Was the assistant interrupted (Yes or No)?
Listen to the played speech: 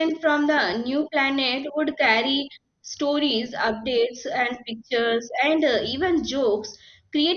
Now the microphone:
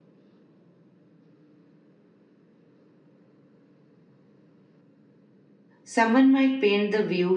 Yes